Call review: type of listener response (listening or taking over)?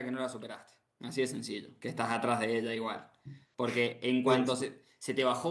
listening